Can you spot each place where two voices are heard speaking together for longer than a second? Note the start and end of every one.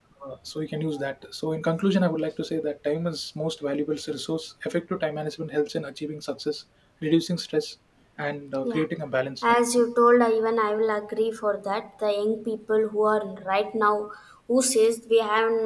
none

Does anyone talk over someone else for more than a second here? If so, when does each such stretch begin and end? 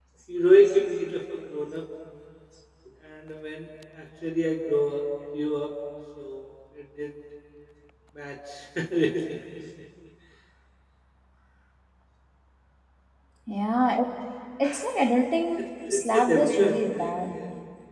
15.9-17.1

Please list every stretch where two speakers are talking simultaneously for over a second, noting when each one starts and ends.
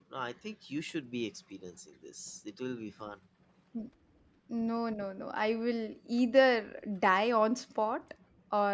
none

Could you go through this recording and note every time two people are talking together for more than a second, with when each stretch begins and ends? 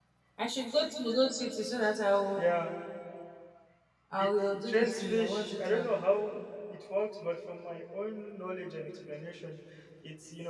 4.2-5.9

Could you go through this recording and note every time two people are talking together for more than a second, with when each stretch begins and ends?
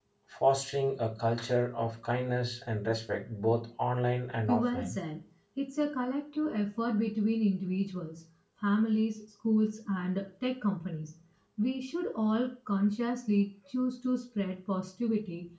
none

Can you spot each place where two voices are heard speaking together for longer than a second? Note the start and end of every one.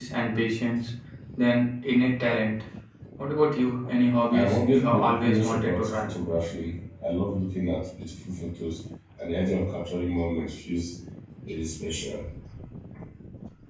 4.3-6.1

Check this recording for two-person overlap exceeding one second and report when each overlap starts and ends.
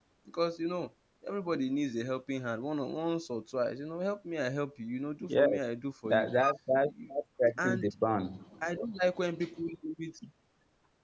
none

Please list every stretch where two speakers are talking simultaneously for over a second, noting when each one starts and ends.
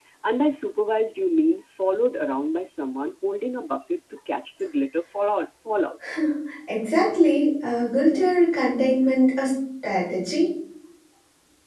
none

